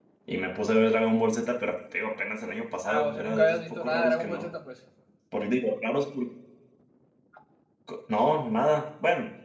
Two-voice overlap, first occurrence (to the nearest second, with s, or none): 3 s